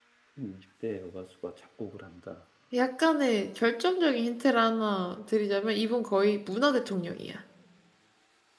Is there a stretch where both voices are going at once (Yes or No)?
No